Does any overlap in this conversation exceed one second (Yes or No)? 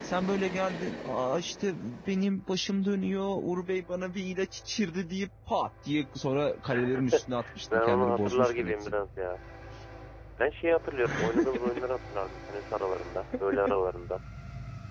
Yes